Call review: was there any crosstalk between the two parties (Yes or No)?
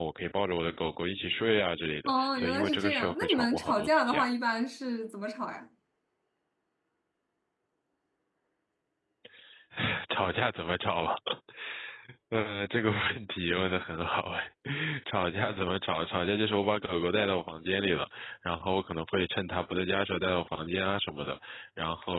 Yes